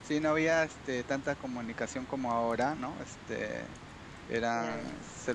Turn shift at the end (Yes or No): No